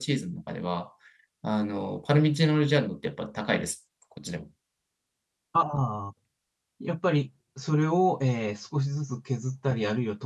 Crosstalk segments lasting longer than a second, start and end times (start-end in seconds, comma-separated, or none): none